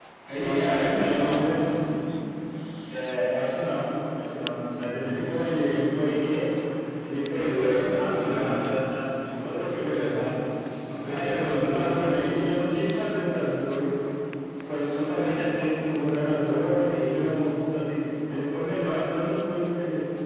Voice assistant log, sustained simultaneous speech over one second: present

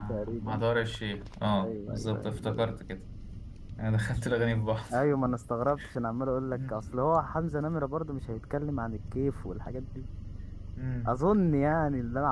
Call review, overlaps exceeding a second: present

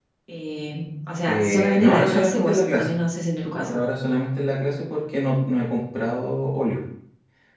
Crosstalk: present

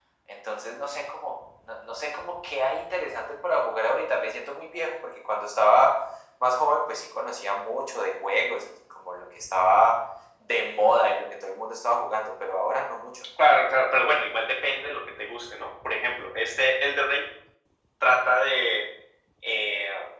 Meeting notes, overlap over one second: none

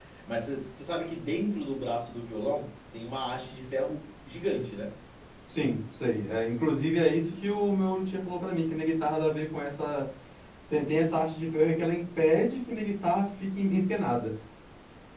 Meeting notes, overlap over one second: none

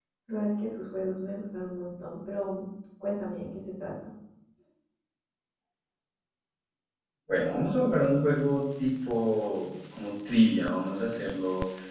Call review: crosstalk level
none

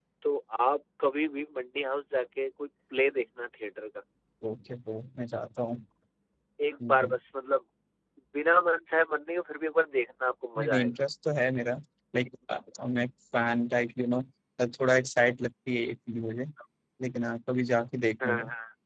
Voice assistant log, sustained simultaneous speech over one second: none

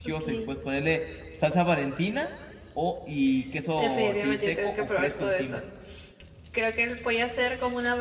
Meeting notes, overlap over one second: present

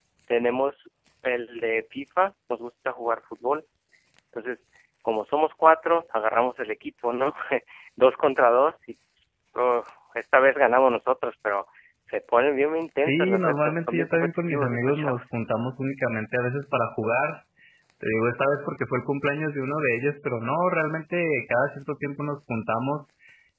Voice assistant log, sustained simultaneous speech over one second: present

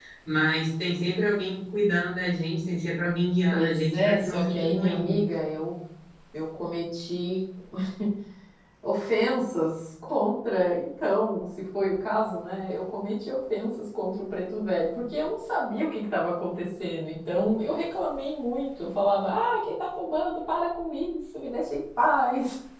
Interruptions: present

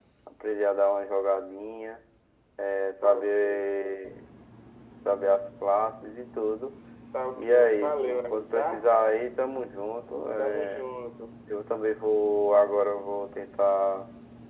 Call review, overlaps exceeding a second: present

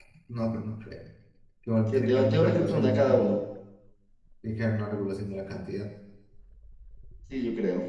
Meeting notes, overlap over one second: present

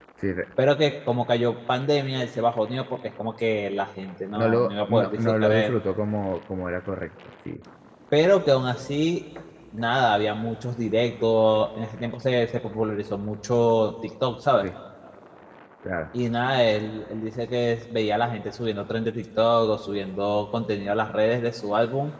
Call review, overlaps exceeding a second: present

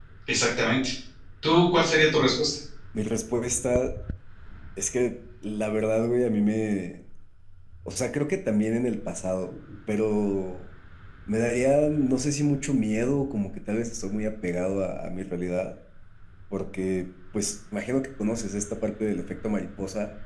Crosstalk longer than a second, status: none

